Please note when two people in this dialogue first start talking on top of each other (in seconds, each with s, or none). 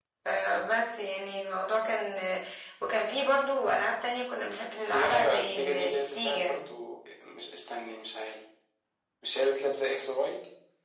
4.9 s